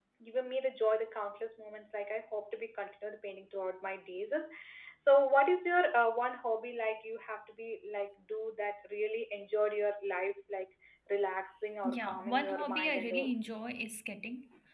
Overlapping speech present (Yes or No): Yes